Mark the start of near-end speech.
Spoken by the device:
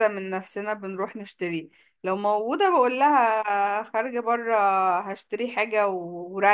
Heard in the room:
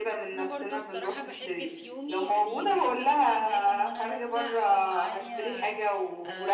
0.3 s

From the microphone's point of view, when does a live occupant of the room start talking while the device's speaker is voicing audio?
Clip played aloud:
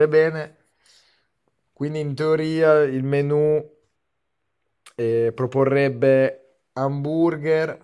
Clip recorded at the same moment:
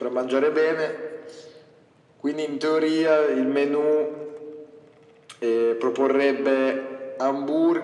none

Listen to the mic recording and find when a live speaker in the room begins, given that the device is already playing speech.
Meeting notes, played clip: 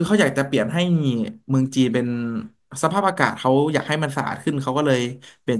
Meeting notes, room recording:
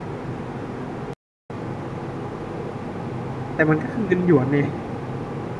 3.5 s

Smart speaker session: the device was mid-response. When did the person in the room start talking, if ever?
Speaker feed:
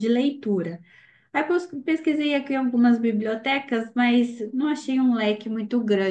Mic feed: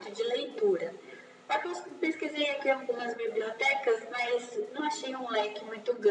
none

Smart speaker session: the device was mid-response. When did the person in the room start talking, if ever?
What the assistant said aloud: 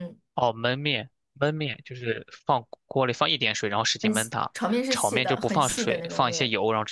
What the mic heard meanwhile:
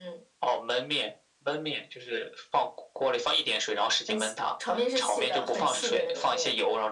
none

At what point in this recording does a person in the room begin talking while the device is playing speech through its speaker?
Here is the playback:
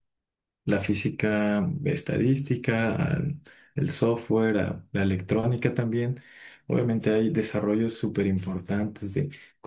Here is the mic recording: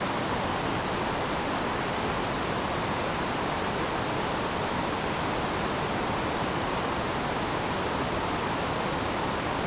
none

